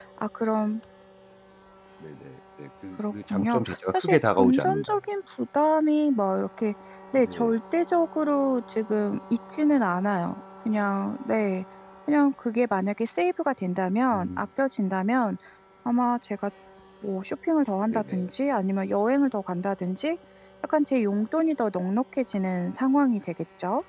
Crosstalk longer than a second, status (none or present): present